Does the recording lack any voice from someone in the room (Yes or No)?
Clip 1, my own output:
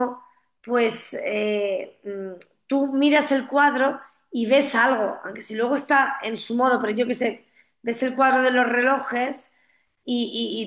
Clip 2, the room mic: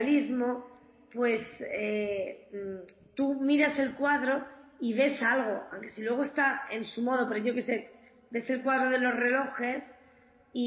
Yes